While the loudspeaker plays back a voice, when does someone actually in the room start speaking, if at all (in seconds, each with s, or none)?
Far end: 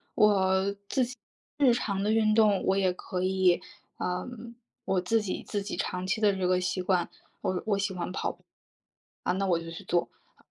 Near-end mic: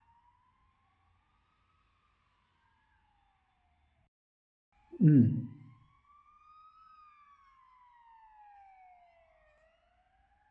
5.0 s